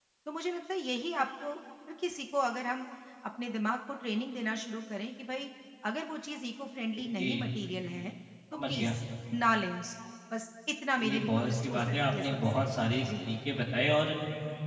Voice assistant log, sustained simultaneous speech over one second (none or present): present